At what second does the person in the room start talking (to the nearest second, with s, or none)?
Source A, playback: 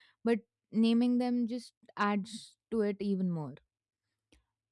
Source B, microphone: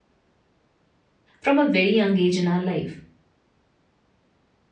1 s